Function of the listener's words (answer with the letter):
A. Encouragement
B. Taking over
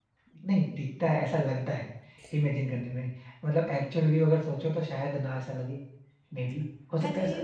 B